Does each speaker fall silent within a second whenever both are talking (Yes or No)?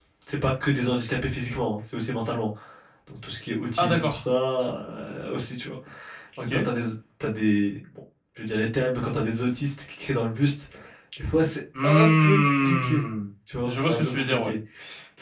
No